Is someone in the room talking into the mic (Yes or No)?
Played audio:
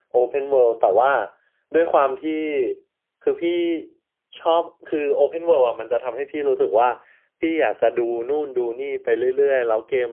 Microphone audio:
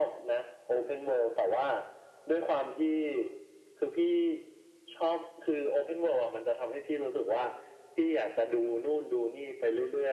No